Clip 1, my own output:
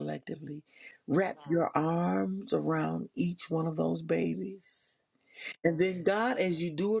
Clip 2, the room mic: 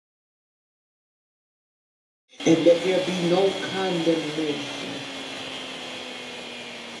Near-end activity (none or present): present